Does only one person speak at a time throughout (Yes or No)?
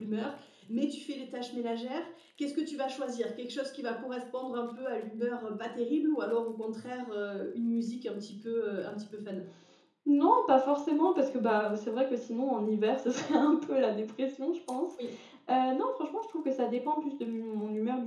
Yes